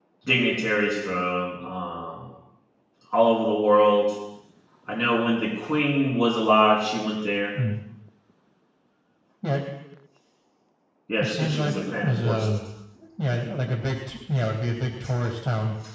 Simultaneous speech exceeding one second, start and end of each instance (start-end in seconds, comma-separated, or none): 11.2-12.5